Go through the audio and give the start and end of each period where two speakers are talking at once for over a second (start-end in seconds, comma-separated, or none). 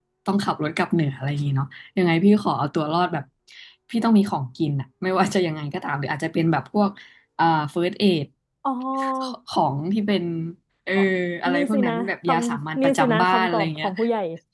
11.5-13.9